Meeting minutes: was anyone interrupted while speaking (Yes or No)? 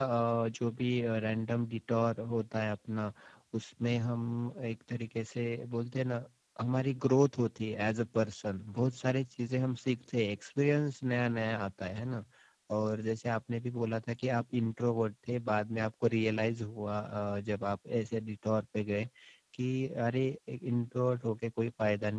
No